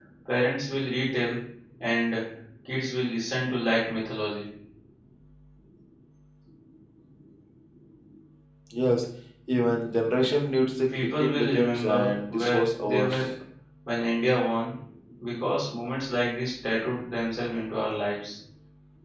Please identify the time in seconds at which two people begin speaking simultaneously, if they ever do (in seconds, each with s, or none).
10.9 s